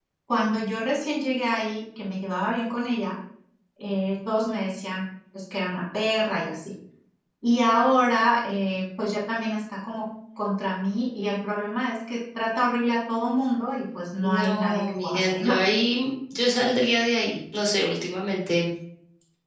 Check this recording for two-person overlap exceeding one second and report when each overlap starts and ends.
14.2-15.6

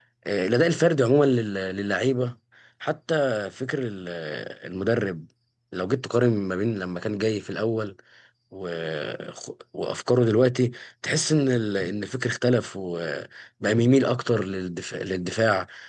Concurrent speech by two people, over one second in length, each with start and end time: none

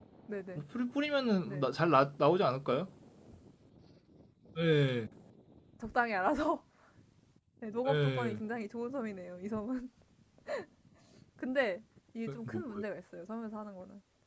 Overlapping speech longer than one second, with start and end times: none

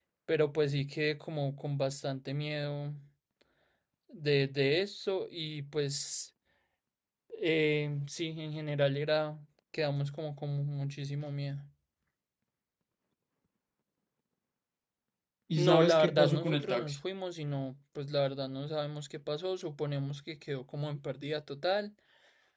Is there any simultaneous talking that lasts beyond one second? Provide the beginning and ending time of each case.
15.6-17.0

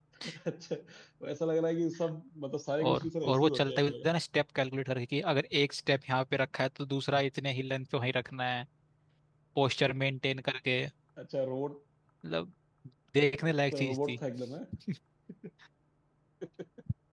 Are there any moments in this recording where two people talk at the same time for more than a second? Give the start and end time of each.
2.8-4.1

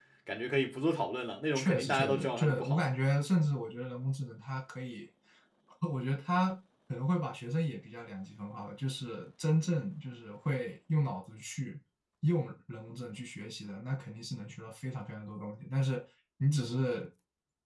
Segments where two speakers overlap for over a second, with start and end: 1.6-2.9

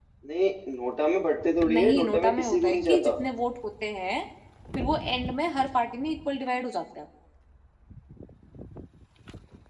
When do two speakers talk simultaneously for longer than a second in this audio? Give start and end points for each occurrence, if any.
1.7-3.1

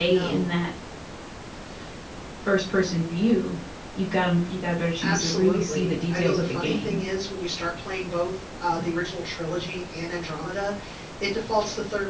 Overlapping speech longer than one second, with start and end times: 5.0-7.0

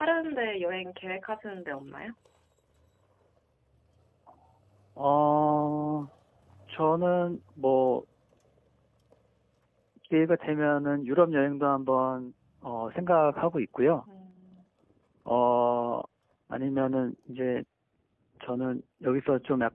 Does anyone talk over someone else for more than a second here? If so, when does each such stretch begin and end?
none

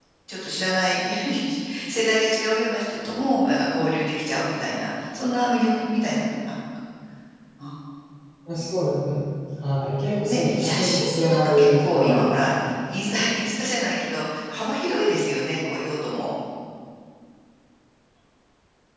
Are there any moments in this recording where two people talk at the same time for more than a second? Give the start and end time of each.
10.2-12.7

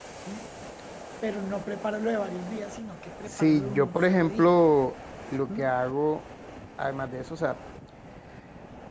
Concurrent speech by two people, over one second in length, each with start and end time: 3.3-4.6

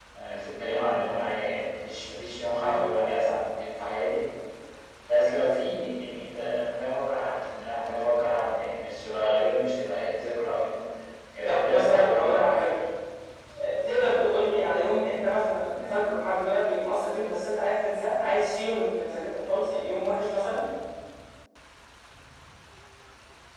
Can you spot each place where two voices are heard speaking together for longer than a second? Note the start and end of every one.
11.4-12.7

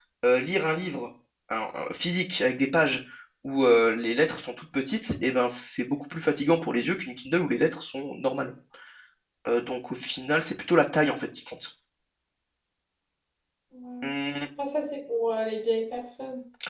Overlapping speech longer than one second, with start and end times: none

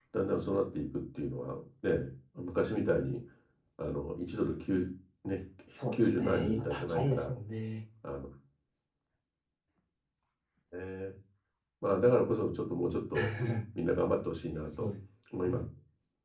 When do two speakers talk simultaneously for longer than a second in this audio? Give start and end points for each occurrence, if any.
5.9-7.3

